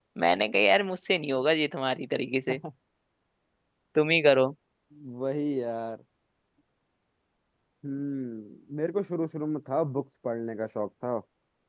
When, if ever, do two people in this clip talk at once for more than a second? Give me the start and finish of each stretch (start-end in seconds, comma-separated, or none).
none